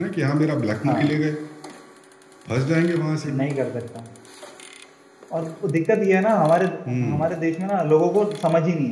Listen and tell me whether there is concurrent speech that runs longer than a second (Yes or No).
No